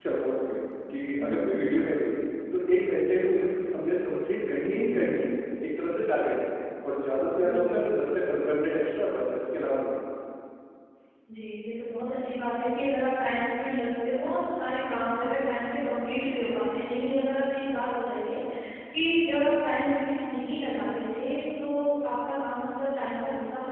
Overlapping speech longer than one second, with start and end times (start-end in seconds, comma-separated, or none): none